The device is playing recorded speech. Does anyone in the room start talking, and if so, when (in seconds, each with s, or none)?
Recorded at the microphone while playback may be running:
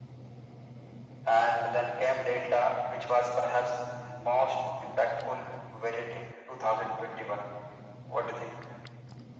none